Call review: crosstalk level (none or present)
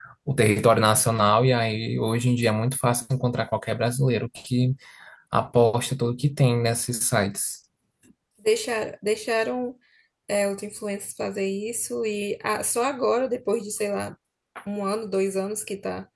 none